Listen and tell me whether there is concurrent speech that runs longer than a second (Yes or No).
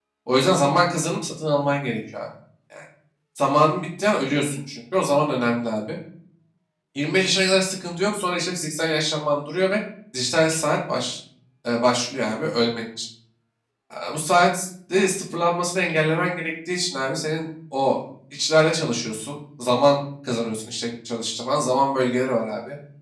No